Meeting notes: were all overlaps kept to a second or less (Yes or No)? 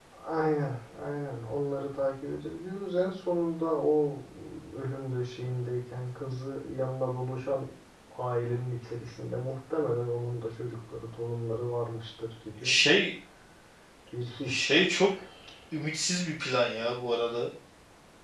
Yes